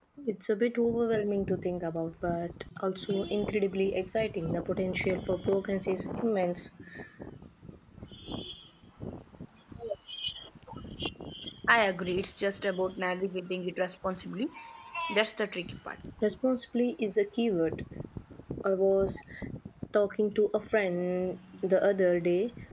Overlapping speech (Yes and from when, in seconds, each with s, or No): No